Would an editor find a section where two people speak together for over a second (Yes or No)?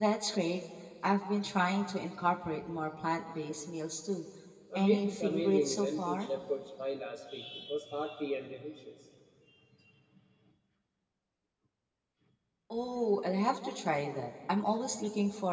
Yes